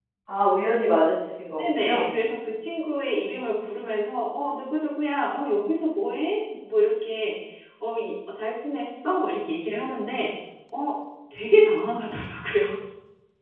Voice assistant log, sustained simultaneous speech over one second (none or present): none